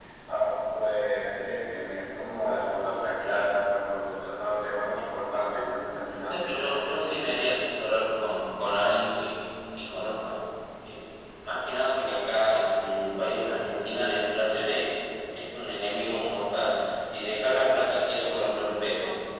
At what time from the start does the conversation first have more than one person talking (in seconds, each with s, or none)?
6.2 s